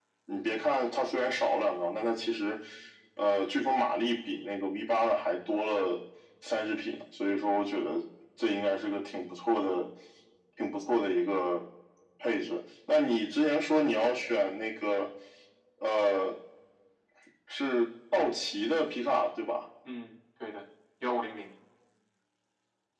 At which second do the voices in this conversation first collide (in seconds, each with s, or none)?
none